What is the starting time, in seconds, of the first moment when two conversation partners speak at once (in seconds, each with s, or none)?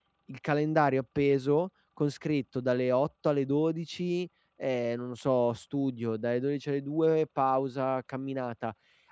none